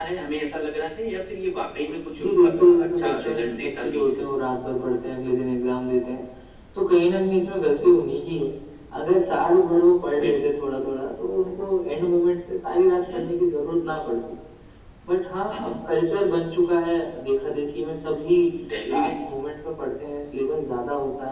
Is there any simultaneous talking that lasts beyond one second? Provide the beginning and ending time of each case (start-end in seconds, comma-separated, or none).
2.2-4.2